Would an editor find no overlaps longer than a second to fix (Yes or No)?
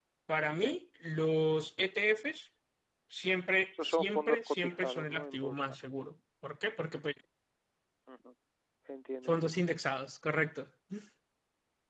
No